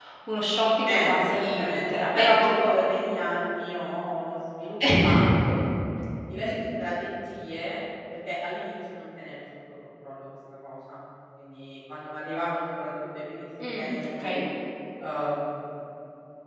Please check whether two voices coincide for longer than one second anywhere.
Yes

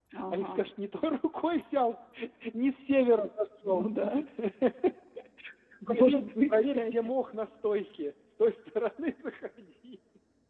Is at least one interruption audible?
Yes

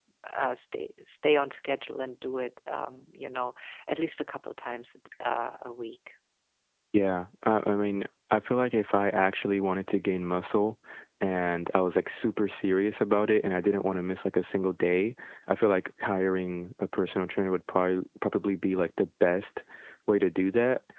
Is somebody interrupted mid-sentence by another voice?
No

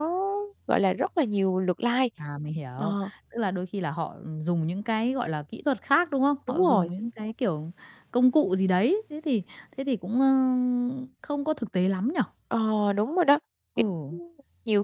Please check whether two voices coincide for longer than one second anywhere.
No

